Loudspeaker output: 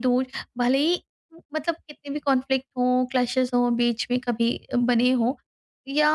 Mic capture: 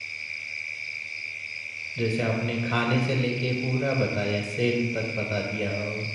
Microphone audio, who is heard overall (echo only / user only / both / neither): user only